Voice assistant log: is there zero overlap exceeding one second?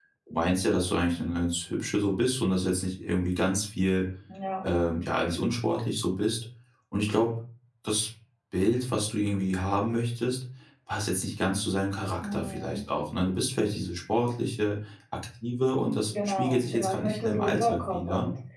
No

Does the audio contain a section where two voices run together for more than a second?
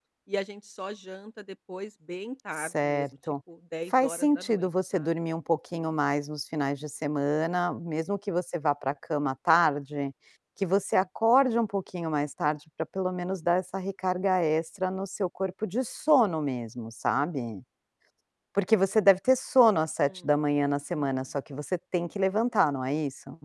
Yes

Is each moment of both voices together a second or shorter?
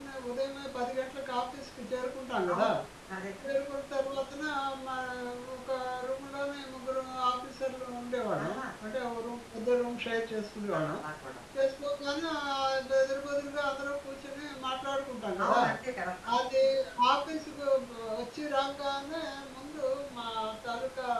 Yes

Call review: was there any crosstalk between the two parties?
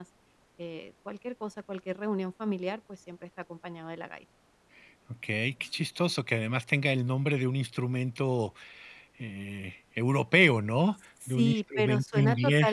Yes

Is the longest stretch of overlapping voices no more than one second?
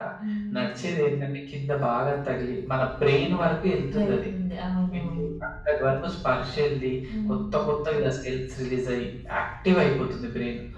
Yes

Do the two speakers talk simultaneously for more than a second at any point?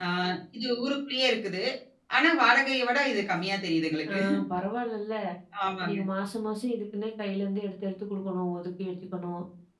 No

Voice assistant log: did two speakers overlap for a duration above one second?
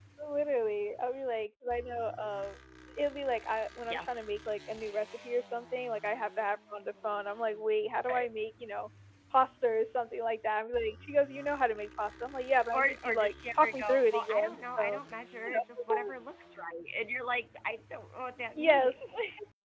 Yes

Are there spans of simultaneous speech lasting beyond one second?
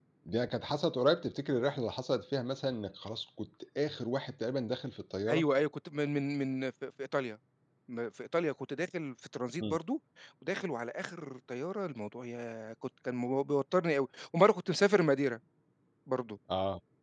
No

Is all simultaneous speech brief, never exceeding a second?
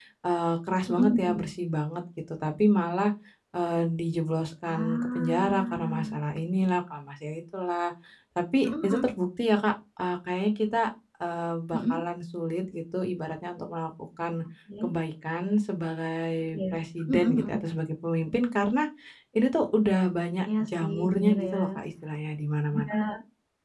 No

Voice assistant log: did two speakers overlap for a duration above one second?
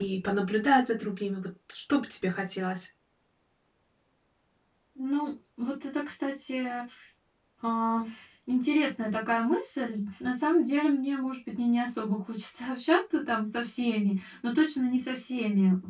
No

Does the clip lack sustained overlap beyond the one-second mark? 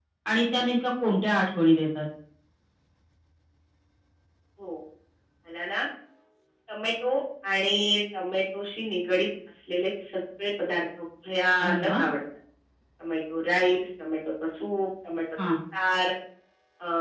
Yes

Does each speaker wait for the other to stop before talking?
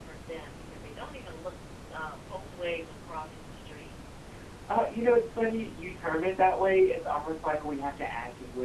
Yes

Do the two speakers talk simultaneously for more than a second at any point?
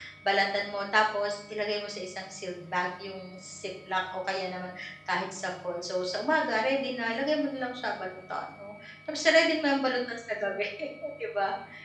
No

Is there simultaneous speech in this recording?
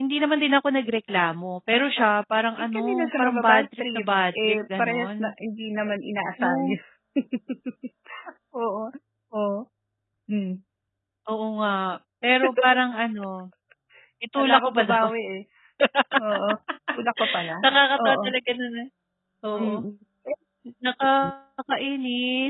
Yes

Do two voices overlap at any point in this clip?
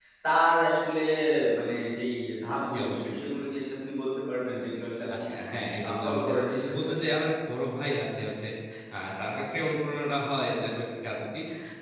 Yes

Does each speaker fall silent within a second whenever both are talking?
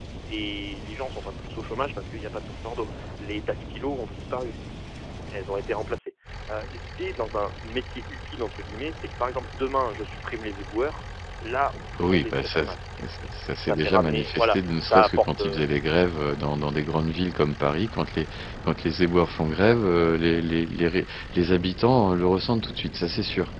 No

